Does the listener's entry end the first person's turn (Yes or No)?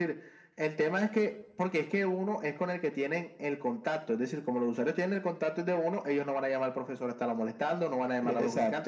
Yes